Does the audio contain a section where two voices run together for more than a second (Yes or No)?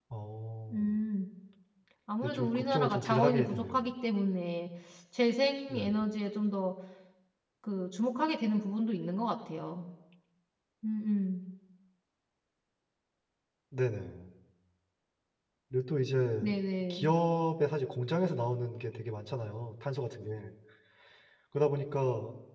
Yes